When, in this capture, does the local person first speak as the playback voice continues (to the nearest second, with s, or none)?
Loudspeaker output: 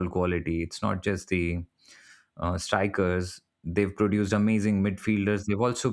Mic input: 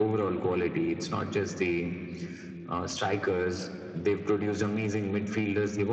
none